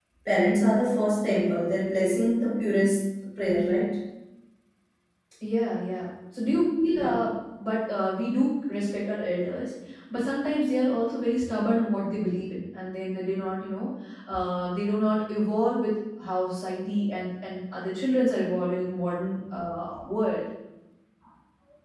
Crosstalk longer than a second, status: none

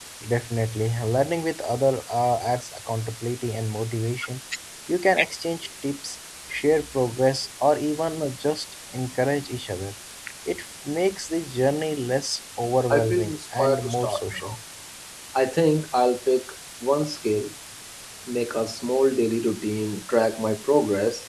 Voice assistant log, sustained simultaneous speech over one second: present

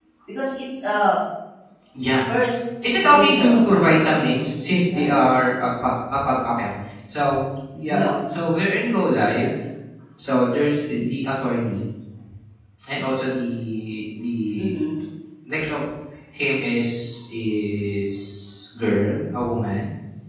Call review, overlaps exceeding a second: present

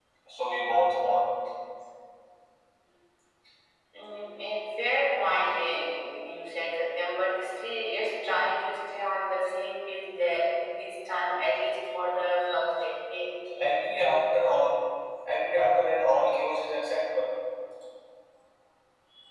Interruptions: none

